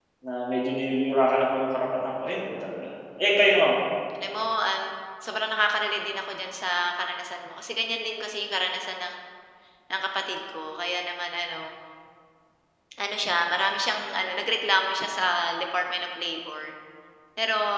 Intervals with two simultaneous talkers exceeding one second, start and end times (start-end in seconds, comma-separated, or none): none